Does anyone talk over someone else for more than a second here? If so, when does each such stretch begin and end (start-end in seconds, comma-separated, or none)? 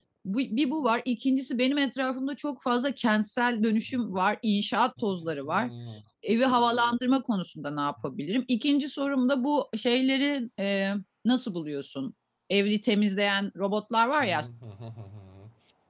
none